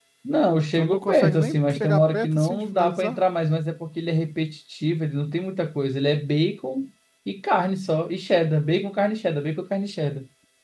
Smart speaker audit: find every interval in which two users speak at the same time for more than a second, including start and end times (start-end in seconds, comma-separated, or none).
0.8-3.2